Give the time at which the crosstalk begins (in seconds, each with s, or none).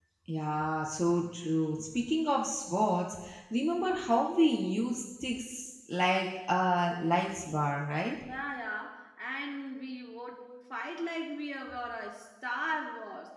none